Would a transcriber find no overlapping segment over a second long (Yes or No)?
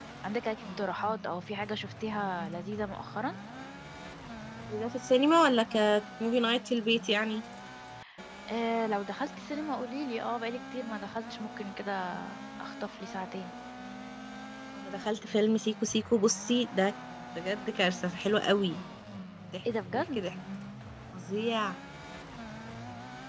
Yes